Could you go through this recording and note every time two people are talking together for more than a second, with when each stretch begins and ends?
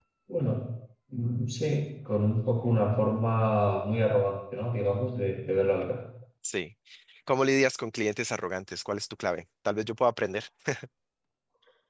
none

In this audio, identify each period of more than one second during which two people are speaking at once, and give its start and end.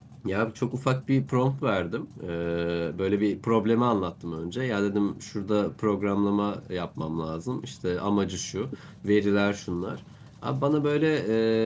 none

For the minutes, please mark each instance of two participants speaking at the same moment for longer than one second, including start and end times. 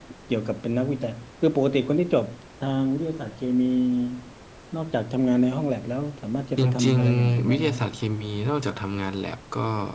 6.6-7.8

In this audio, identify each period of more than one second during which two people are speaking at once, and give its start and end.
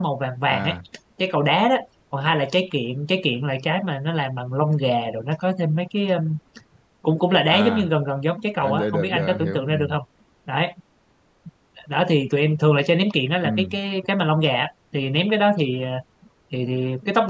8.6-9.9

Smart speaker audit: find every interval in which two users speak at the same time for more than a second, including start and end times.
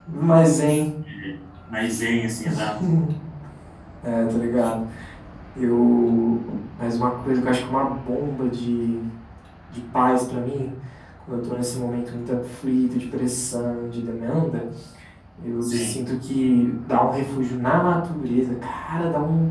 none

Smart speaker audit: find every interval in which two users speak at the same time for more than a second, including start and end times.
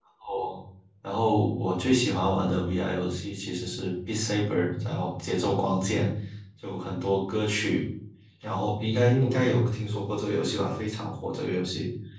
8.9-10.2

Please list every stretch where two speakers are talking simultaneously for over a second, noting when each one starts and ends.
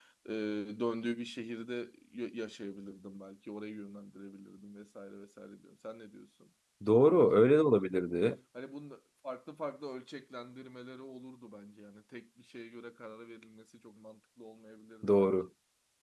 none

